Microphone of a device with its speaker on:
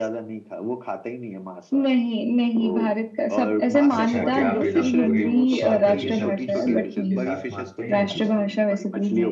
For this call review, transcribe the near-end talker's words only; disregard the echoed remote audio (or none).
अच्छा क्या आप एकदम पूरी सौ प्रतिशत इस के साथ मानते हैं ये चीज को